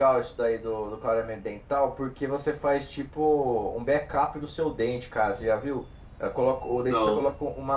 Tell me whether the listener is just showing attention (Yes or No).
Yes